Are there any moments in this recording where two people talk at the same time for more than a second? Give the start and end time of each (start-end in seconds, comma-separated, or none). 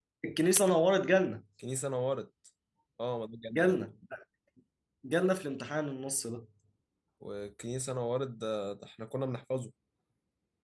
none